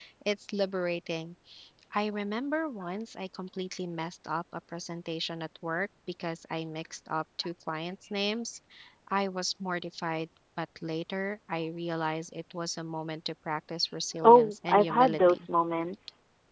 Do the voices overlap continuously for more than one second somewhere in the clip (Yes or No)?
Yes